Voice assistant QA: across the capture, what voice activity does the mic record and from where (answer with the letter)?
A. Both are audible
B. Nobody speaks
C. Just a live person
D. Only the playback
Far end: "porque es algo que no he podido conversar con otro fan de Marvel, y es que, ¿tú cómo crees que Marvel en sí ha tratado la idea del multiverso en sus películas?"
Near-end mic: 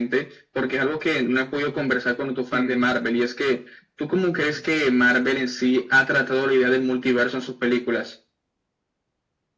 A